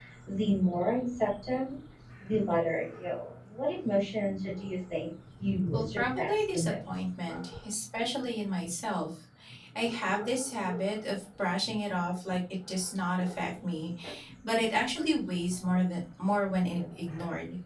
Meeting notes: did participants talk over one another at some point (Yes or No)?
Yes